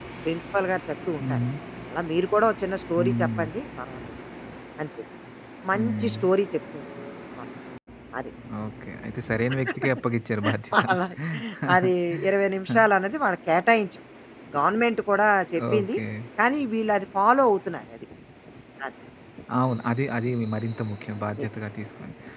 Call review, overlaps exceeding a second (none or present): none